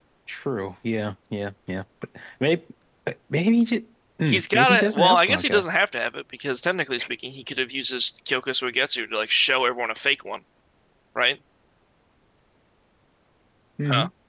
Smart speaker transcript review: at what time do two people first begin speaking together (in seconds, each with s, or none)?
4.3 s